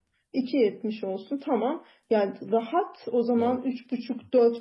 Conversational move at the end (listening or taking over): listening